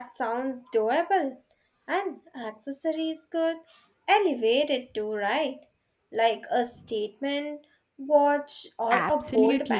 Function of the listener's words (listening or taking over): taking over